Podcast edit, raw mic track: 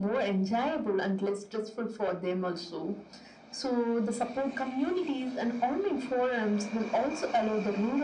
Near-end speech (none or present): none